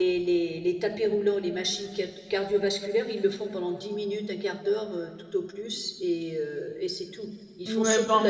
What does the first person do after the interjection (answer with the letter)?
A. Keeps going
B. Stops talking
B